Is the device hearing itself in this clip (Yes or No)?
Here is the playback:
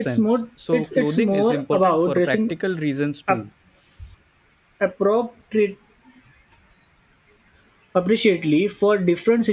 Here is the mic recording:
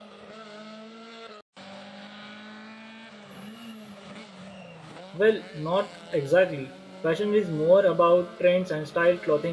No